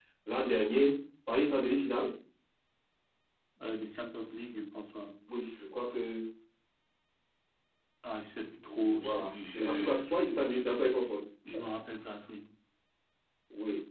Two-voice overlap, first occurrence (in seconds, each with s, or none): 8.6 s